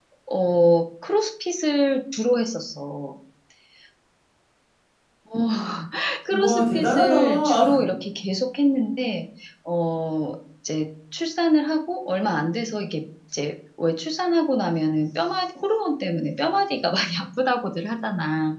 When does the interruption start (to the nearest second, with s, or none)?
6 s